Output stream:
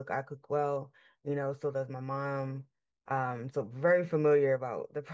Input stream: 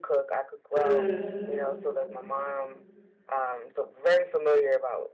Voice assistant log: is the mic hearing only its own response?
No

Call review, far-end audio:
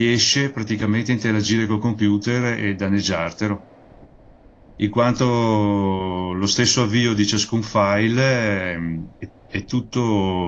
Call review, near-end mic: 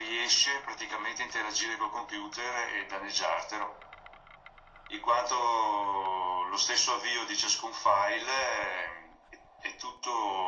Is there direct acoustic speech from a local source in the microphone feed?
No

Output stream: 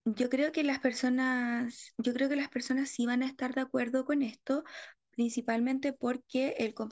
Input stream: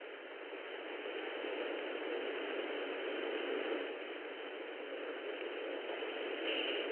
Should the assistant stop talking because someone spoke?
No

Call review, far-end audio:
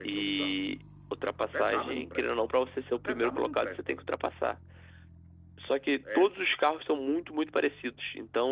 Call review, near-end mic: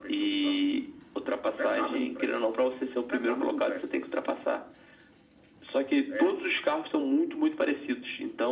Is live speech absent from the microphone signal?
Yes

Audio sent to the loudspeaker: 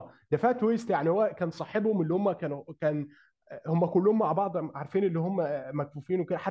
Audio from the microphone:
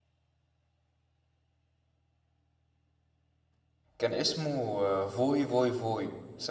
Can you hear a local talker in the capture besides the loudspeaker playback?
Yes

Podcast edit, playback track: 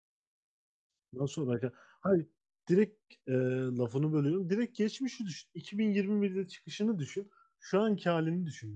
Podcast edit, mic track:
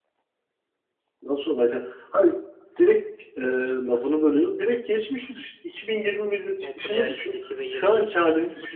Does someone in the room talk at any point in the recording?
Yes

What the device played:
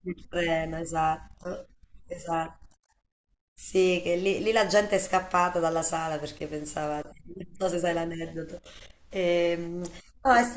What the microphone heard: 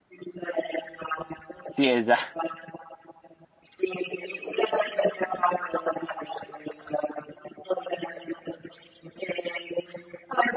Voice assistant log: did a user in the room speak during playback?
Yes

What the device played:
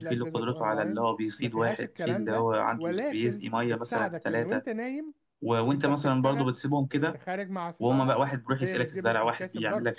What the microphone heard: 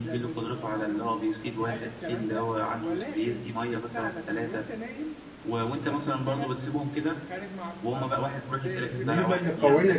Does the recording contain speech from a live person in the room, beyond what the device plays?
Yes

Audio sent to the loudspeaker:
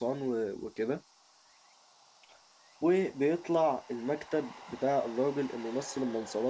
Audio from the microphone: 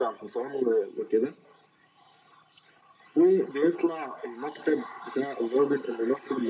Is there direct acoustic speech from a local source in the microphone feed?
No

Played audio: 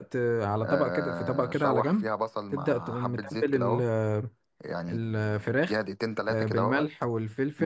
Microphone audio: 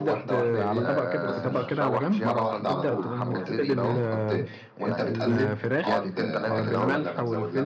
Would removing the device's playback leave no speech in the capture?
No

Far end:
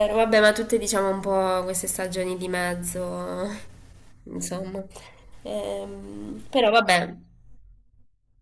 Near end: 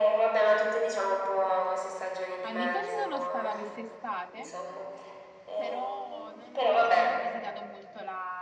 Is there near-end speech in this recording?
Yes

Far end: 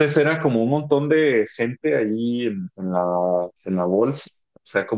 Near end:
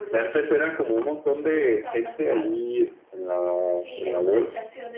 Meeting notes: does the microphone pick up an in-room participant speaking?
Yes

